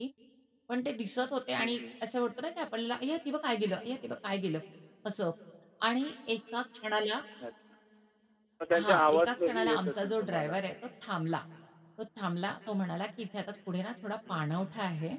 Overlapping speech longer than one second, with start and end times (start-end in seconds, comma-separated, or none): 8.8-10.6